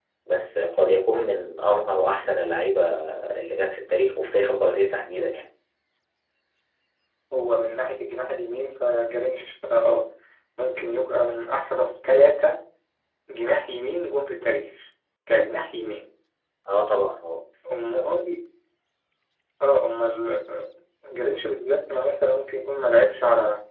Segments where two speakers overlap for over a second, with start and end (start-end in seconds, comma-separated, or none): none